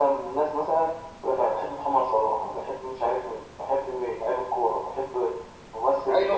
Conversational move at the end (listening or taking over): taking over